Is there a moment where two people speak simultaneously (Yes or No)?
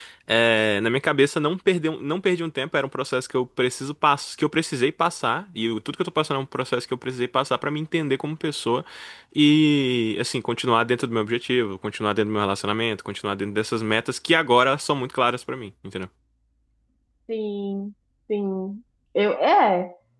No